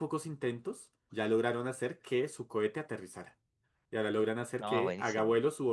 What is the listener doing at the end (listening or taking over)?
listening